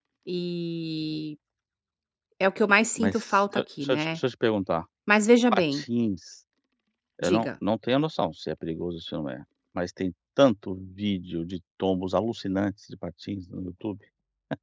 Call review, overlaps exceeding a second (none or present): present